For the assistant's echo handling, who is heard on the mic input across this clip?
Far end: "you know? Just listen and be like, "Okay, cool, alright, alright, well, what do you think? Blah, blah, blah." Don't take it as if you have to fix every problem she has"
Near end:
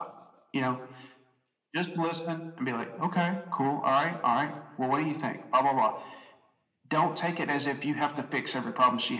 echo only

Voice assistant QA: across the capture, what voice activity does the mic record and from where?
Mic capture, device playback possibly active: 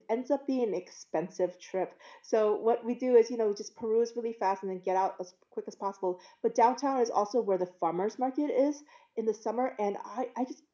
echo only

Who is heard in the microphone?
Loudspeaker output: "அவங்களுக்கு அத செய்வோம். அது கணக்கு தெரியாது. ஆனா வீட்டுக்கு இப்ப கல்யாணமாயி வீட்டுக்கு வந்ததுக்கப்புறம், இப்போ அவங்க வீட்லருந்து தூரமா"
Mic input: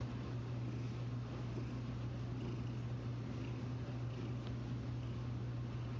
neither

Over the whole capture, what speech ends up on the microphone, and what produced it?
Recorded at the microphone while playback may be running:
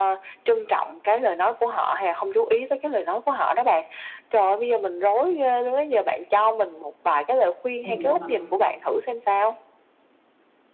both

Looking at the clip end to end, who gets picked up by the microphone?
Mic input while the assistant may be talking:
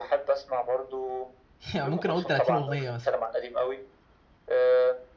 both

